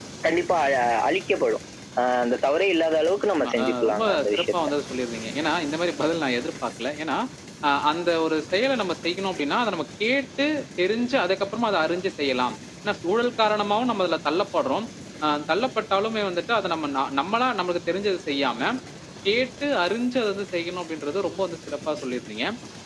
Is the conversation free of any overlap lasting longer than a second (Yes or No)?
No